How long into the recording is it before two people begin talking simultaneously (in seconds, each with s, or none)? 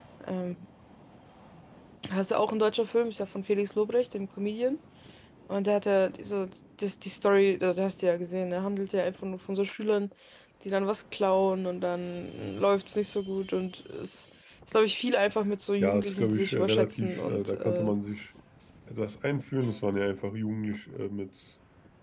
15.8 s